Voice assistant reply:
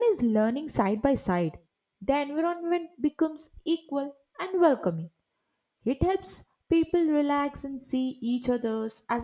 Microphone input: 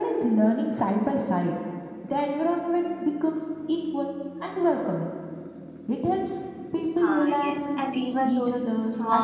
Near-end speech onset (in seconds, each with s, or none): 7.0 s